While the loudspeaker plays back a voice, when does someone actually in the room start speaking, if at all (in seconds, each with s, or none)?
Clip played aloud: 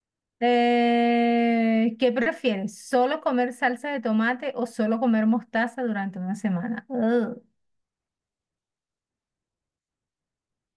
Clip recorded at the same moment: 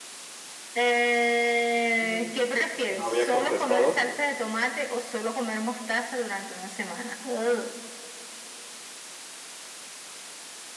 2.0 s